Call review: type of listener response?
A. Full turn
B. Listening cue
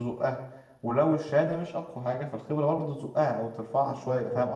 A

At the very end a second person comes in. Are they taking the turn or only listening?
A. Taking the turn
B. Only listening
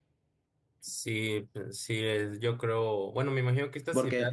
B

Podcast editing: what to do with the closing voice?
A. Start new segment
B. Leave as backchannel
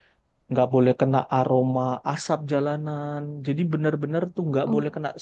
B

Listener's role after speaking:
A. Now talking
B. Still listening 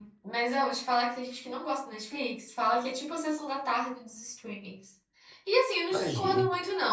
B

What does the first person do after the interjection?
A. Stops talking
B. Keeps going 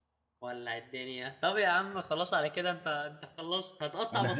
A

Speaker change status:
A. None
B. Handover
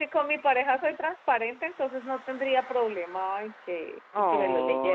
B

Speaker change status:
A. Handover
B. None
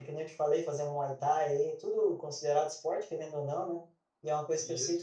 B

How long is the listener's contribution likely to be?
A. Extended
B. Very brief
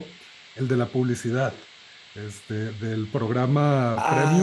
A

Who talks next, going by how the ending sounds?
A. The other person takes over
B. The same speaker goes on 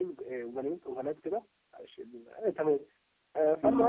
B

